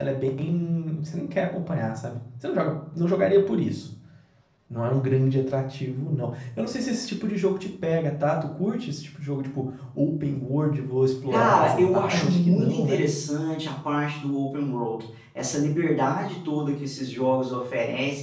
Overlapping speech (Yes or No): Yes